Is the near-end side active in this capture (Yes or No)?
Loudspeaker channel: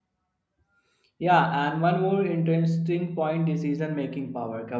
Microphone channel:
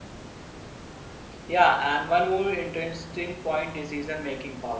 No